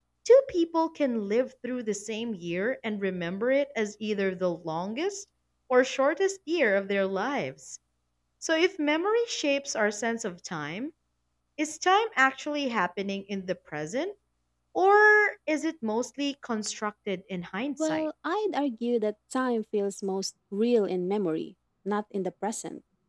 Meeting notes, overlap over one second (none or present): none